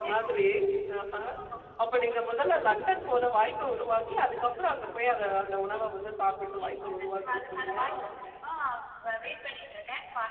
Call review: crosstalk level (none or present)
present